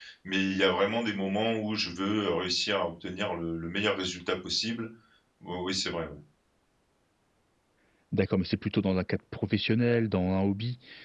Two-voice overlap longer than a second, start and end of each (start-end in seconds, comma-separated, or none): none